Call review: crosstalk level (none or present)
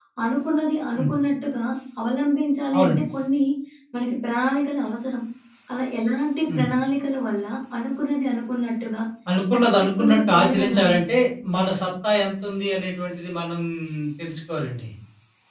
present